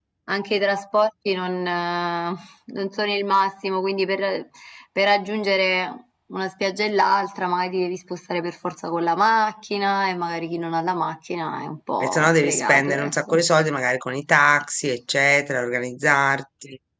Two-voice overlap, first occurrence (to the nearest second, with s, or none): 12 s